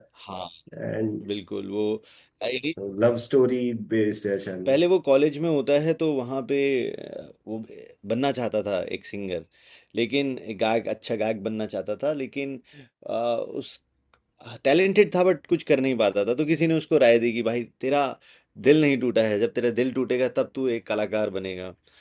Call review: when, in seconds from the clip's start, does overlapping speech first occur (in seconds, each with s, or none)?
none